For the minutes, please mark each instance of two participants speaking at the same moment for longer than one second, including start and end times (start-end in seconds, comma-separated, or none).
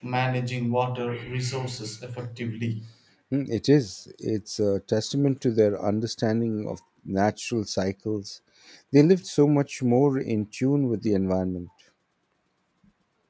none